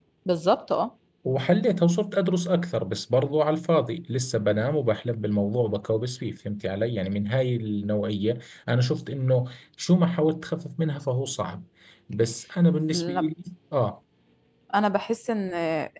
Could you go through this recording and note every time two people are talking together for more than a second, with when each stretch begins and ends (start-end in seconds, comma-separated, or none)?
none